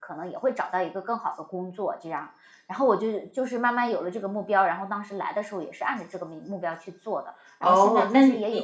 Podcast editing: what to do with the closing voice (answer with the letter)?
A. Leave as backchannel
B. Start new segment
B